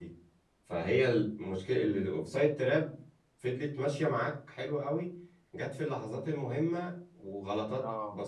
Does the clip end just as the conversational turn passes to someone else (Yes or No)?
No